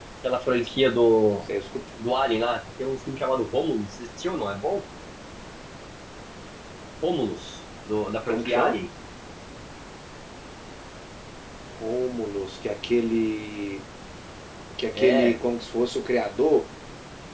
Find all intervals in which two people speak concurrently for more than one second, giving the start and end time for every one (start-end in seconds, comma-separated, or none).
none